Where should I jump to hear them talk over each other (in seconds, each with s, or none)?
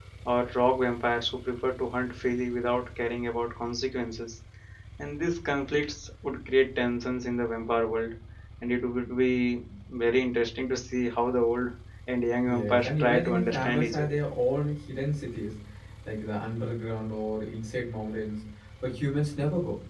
12.4 s